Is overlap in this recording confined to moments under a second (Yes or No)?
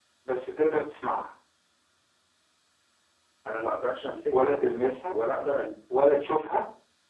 Yes